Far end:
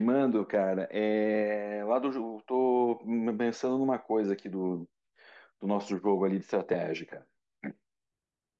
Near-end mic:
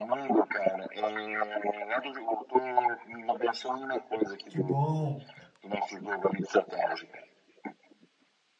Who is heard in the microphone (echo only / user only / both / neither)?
both